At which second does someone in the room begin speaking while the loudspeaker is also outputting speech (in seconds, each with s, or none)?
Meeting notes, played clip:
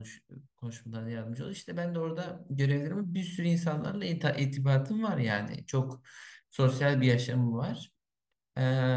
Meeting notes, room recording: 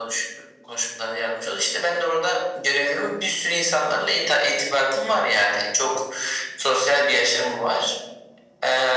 none